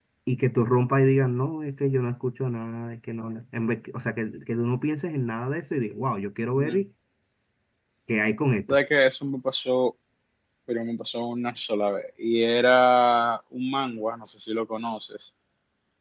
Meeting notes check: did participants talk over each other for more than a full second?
No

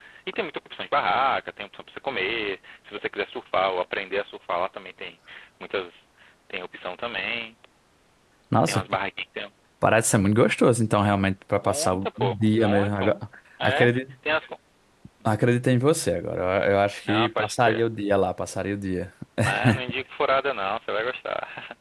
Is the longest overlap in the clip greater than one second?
Yes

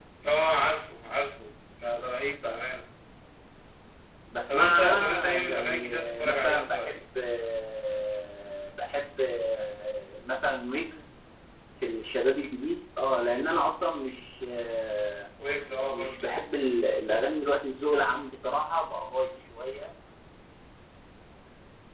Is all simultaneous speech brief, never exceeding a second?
No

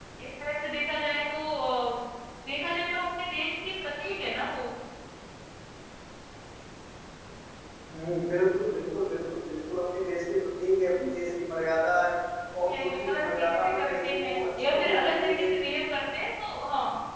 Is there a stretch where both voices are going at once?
Yes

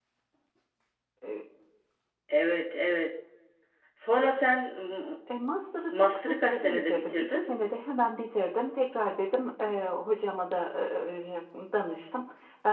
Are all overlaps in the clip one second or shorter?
No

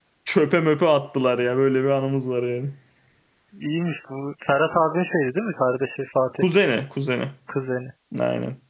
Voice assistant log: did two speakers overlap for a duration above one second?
No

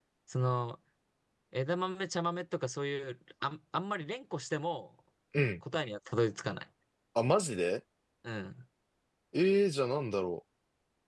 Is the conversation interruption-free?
Yes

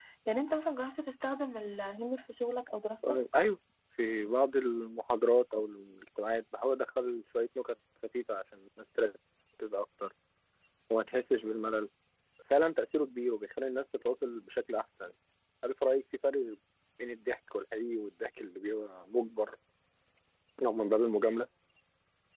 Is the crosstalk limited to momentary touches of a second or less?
Yes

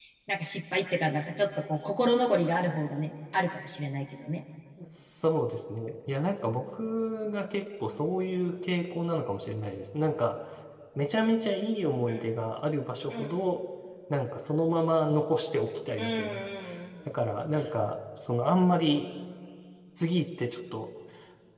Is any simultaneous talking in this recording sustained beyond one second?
No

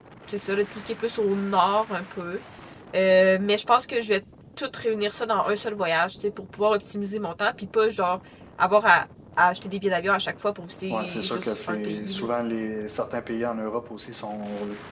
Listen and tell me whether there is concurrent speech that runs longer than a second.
Yes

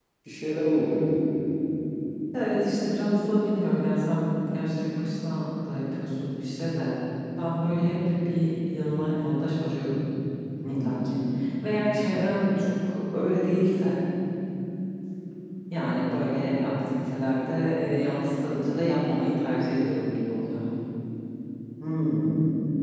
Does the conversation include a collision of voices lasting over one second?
No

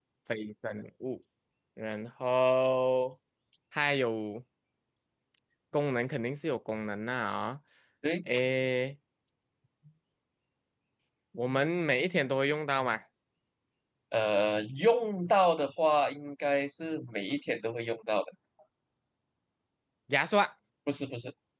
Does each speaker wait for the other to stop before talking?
Yes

